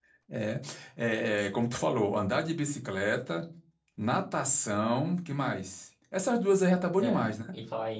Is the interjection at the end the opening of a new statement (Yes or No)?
Yes